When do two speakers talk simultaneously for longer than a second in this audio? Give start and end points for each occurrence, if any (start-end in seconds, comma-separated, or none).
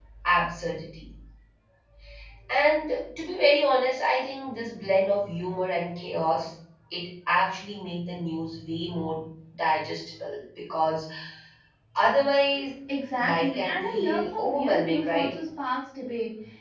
13.2-15.3